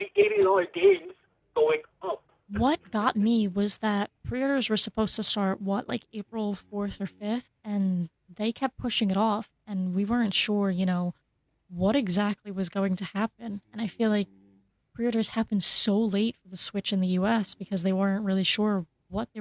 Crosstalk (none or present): none